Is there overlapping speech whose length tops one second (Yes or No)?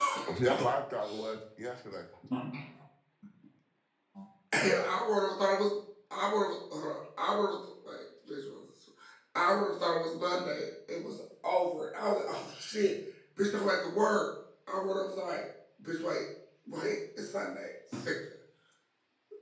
No